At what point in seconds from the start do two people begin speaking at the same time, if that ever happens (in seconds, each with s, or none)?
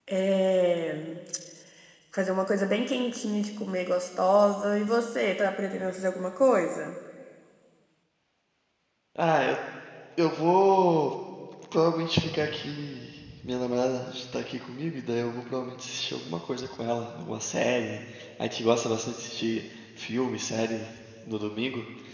none